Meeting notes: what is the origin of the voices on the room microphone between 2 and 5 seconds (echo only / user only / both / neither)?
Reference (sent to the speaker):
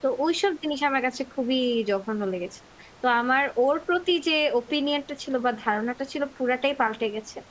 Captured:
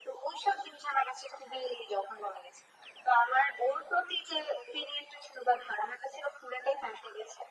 echo only